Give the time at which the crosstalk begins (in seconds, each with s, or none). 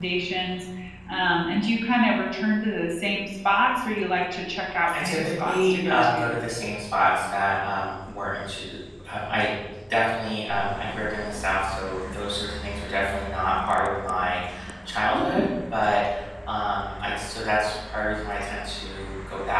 5.0 s